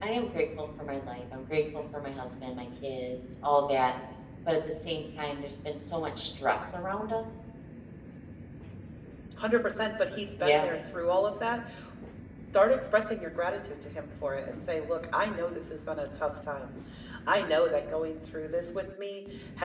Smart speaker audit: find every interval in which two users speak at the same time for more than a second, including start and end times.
none

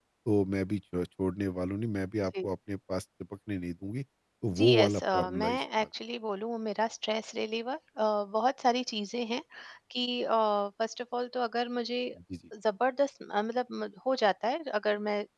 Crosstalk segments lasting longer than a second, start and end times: 4.6-5.8

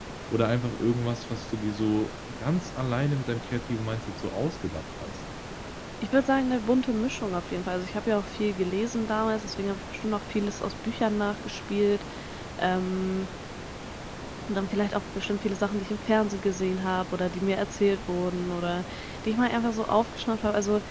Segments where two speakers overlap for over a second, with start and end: none

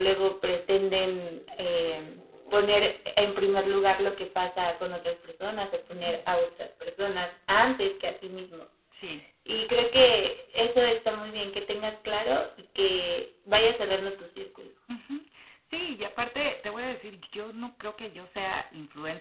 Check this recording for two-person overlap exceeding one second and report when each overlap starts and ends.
none

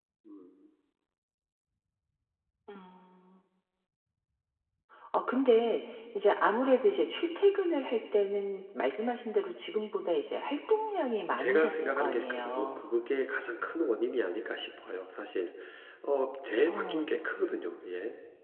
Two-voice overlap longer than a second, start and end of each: 11.4-12.8

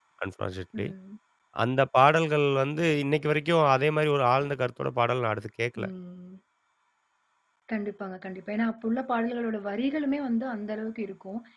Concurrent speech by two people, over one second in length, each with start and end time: none

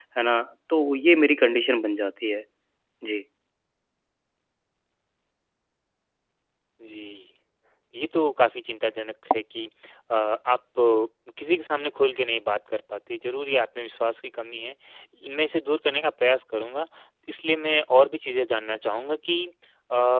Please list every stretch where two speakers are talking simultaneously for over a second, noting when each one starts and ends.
none

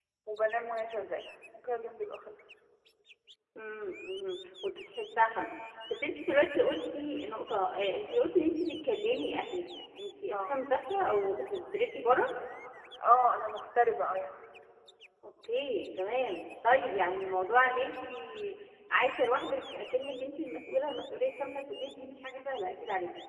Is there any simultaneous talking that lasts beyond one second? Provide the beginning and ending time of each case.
none

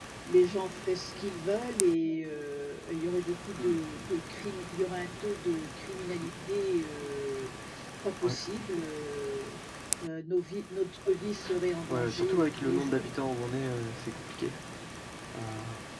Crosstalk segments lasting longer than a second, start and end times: 11.9-13.3

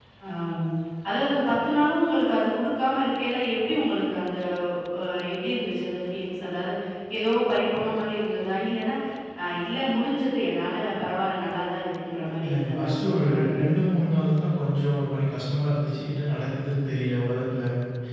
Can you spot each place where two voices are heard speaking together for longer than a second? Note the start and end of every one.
12.4-13.7

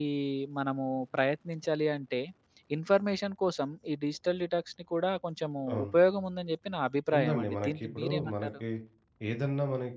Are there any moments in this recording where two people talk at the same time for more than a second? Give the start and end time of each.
7.2-8.5

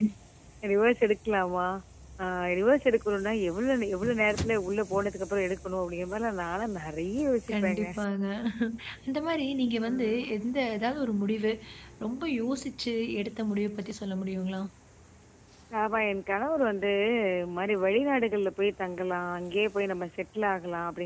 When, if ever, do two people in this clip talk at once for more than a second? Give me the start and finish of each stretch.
none

